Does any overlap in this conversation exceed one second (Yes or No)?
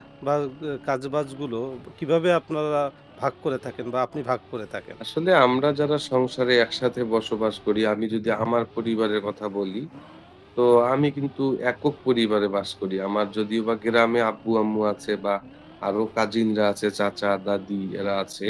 No